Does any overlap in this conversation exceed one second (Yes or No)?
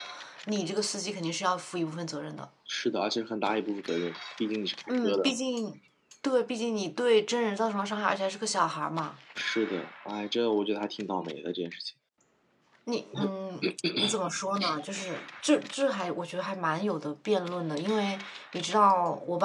No